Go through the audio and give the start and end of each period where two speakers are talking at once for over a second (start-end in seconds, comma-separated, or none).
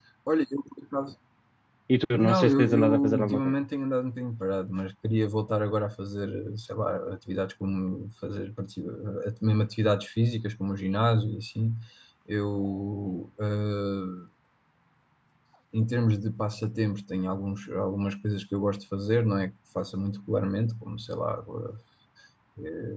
2.1-3.5